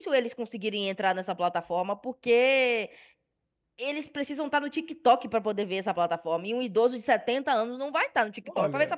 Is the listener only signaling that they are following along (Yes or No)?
No